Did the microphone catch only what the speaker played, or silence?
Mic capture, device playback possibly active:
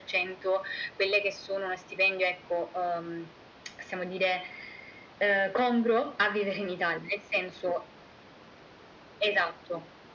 Yes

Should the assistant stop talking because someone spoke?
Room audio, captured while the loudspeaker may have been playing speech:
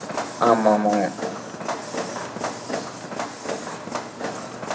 Yes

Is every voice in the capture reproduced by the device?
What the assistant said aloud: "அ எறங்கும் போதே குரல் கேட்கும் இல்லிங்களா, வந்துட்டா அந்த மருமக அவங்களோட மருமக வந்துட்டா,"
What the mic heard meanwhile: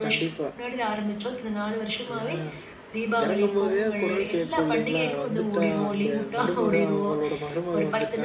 No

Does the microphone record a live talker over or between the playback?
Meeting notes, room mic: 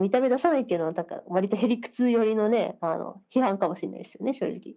No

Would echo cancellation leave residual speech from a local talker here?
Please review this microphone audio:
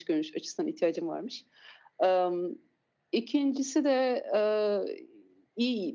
No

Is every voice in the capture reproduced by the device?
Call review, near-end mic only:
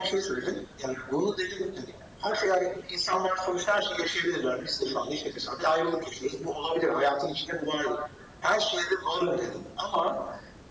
Yes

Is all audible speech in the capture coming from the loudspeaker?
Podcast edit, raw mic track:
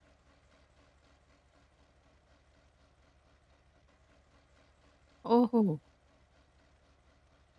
No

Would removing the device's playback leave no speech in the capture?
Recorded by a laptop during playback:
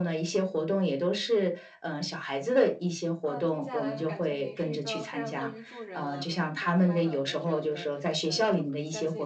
No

